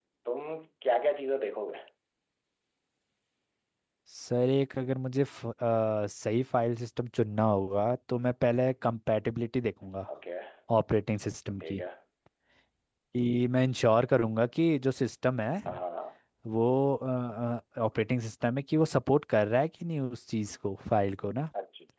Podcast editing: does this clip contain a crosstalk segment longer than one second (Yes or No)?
No